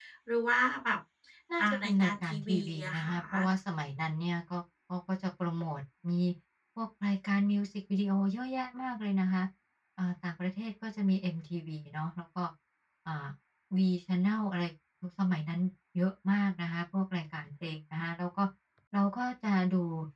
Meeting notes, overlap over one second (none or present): present